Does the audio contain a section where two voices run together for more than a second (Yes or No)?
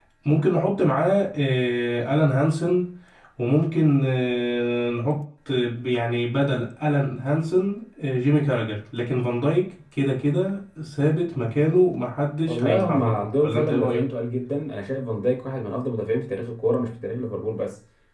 Yes